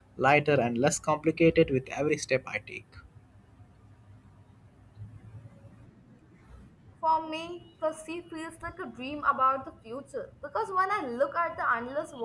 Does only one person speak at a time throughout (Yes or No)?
Yes